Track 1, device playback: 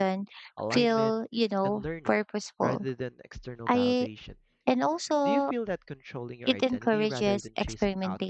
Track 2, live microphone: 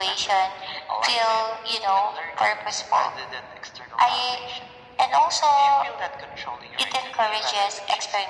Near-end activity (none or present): none